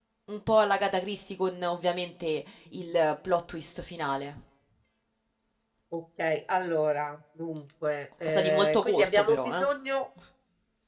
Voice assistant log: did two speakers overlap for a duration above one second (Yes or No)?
Yes